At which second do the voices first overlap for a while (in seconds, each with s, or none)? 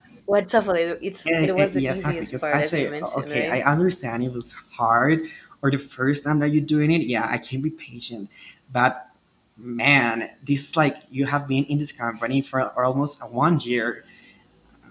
1.2 s